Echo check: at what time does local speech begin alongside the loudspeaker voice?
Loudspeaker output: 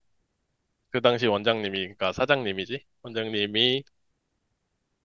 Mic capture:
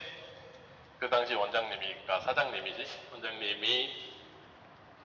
none

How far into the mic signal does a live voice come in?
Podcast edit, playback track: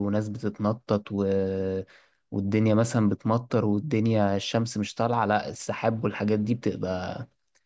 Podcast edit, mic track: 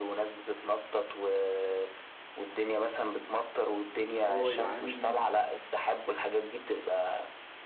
4.0 s

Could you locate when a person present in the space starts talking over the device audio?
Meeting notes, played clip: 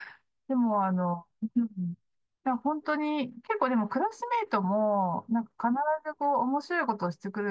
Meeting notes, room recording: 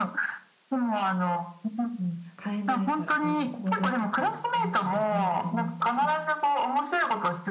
2.4 s

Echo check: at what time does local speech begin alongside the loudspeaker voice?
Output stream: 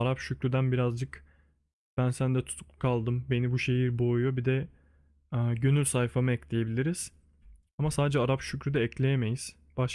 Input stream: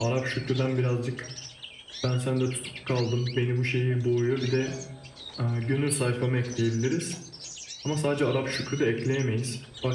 none

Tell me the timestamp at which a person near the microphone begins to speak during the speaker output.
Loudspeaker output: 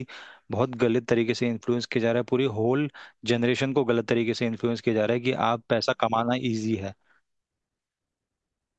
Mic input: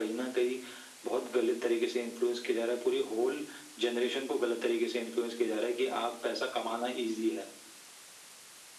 none

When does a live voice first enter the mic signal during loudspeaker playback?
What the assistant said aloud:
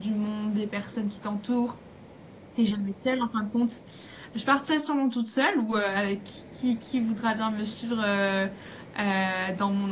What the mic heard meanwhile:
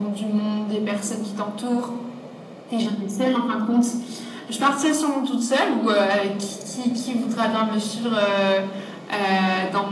none

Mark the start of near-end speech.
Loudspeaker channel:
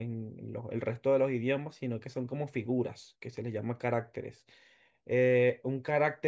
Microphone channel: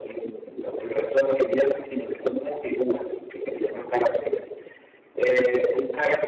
none

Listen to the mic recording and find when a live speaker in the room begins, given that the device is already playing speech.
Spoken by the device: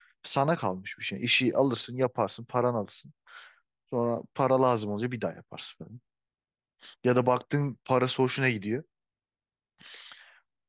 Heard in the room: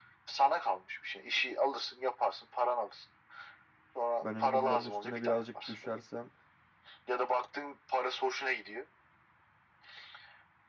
4.2 s

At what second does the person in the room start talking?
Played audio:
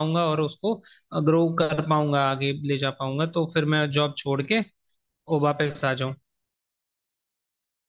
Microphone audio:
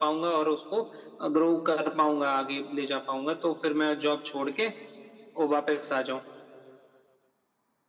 none

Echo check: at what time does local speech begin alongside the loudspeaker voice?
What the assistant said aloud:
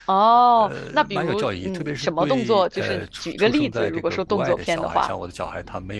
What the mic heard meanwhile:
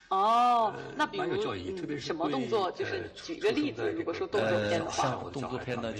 4.3 s

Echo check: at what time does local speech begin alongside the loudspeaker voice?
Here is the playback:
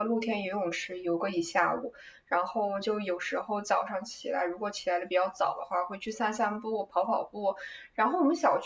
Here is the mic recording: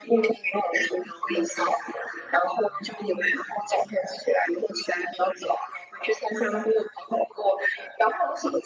none

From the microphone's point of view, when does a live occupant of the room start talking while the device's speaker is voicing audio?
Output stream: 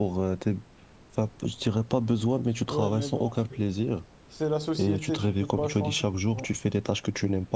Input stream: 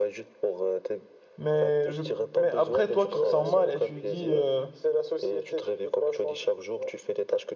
1.4 s

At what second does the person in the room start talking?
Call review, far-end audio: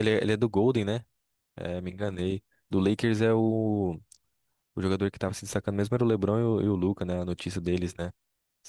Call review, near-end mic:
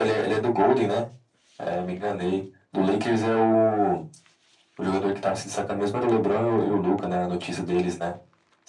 none

